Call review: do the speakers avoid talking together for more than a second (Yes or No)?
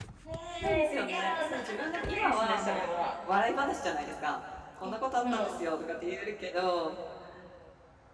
No